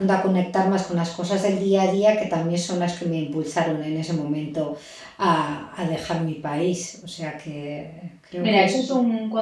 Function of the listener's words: taking over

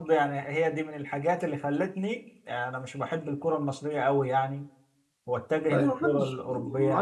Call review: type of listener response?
taking over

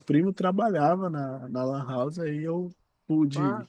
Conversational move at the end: listening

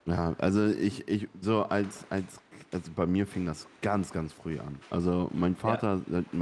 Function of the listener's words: listening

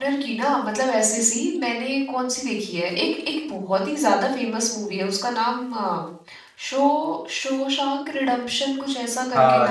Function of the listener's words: taking over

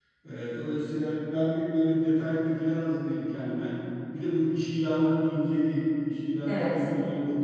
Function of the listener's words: listening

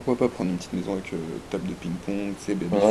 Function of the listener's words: taking over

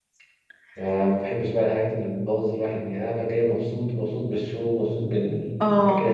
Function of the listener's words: listening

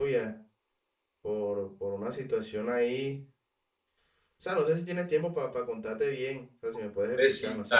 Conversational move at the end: taking over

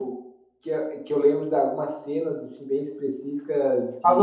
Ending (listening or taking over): taking over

